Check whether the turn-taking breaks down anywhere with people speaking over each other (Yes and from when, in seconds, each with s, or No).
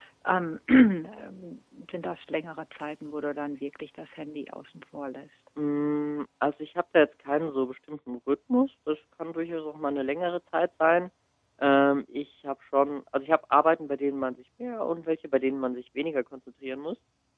No